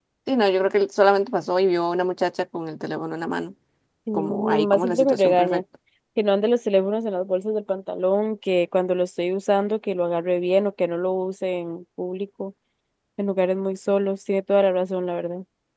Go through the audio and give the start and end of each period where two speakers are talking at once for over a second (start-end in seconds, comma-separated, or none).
4.1-5.6